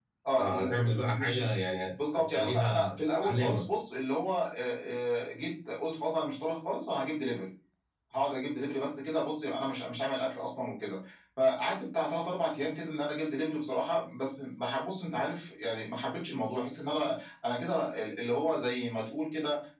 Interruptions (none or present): present